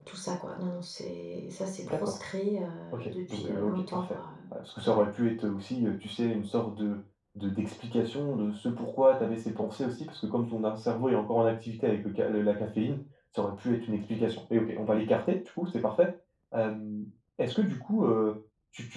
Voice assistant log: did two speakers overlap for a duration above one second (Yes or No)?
Yes